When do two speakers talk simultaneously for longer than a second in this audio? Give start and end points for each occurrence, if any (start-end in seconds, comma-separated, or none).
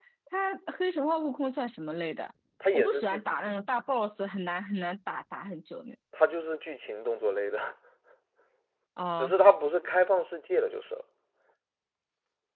none